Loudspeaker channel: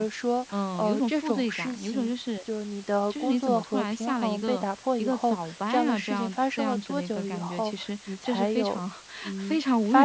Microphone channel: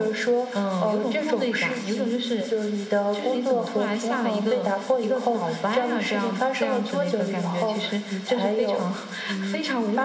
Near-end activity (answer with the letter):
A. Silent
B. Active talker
A